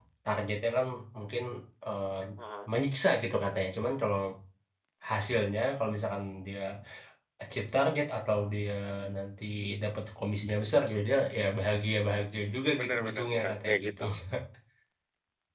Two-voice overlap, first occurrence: 12.7 s

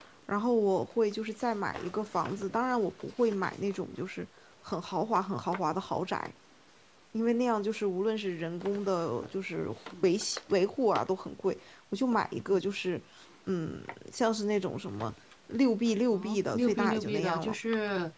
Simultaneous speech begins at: 16.1 s

